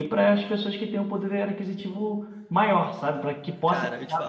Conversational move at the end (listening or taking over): taking over